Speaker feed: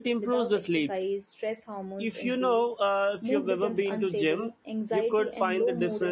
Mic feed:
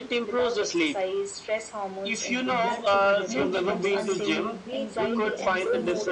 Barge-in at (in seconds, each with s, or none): 2.5 s